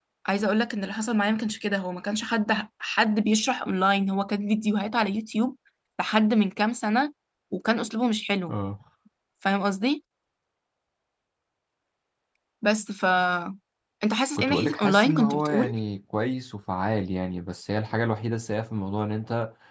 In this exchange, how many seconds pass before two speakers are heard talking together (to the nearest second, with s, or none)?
14 s